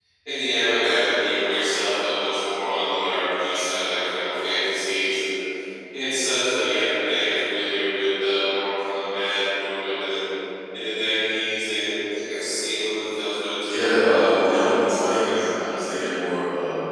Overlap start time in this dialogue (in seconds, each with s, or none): 13.7 s